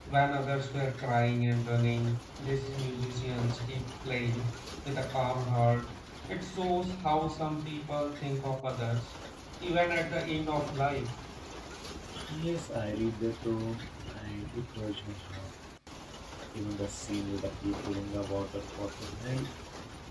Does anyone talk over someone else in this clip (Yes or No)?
No